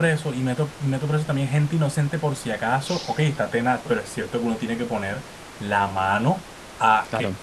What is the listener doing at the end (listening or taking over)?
listening